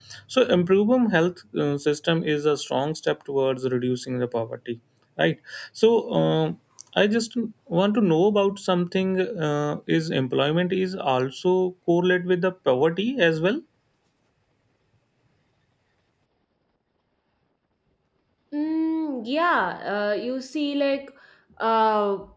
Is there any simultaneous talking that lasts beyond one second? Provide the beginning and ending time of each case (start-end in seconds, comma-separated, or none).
none